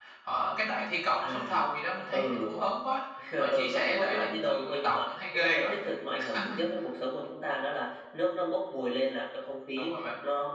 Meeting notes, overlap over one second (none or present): present